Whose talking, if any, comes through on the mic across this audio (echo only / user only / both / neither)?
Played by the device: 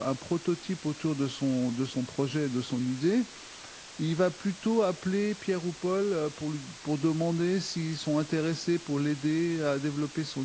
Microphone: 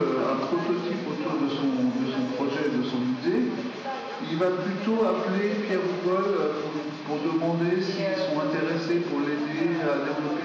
both